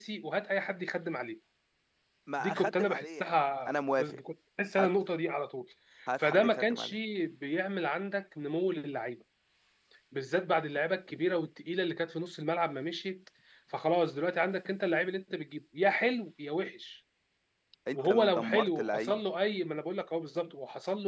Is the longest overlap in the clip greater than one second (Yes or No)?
Yes